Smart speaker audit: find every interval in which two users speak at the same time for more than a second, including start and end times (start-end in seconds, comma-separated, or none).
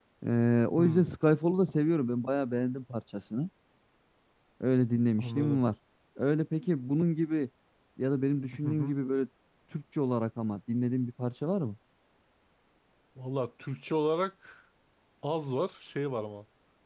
none